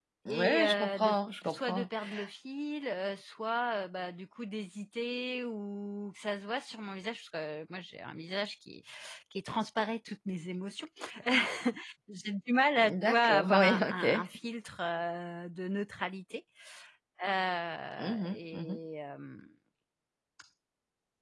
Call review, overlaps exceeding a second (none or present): present